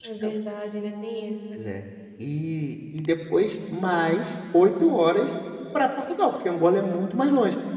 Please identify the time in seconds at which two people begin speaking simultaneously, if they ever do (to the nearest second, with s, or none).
none